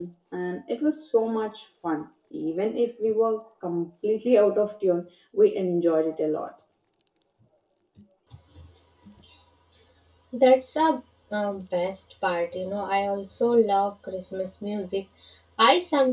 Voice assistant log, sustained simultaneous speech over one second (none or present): none